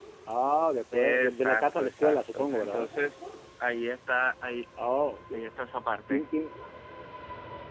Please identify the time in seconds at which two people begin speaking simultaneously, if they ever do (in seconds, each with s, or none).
0.9 s